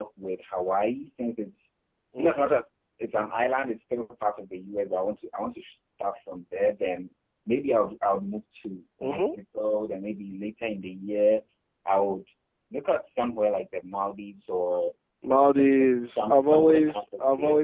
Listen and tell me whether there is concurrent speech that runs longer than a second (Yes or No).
Yes